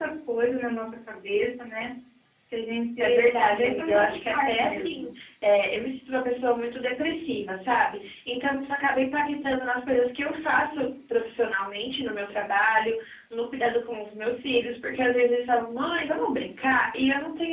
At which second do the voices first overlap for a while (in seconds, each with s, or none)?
3.0 s